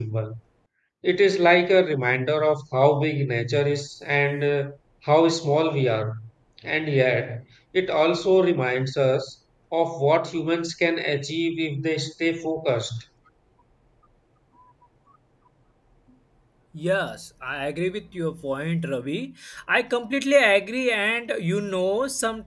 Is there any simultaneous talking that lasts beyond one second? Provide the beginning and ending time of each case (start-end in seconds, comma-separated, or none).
none